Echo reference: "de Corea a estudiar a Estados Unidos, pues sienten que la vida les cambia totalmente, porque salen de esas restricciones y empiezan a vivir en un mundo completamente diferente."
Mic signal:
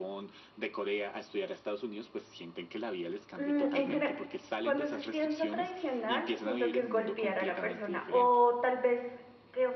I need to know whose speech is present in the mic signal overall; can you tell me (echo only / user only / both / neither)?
both